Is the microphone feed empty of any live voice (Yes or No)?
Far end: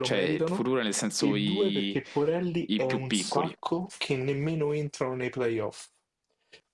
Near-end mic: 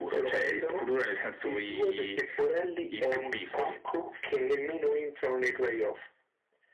Yes